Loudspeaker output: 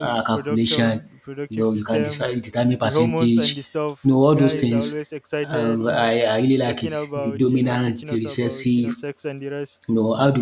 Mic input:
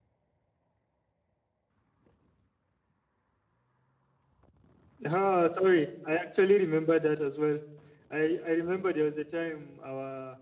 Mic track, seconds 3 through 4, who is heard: neither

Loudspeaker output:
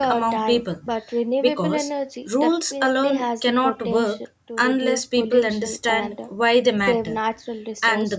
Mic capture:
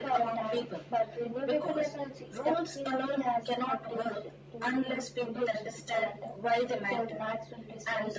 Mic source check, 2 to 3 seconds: echo only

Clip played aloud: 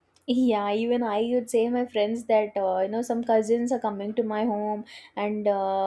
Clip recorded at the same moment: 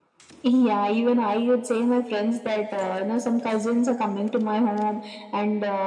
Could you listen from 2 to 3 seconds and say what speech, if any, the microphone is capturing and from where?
echo only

